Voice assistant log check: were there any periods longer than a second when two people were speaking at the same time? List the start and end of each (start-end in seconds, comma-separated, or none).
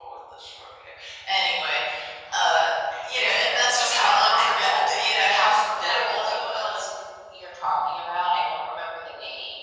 3.2-6.8